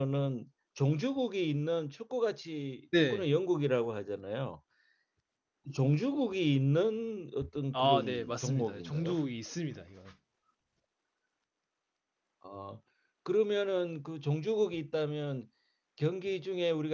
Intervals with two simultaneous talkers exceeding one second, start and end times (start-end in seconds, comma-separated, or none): 7.7-9.2